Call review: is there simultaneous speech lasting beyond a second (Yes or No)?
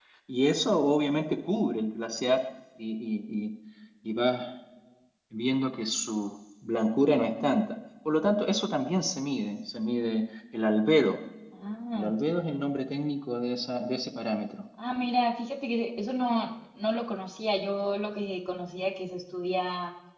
No